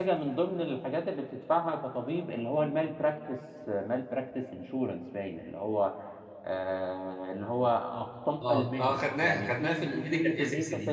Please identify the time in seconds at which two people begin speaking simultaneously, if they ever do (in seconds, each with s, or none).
8.4 s